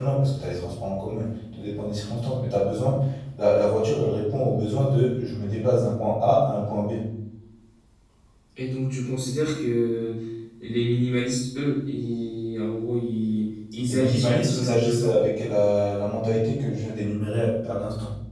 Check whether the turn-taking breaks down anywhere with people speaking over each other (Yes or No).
Yes